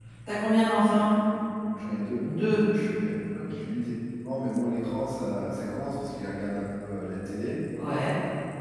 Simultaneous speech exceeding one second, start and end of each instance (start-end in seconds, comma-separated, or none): none